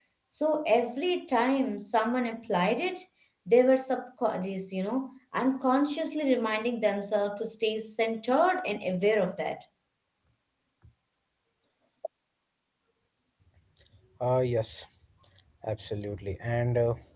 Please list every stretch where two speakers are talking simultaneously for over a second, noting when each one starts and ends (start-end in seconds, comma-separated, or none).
none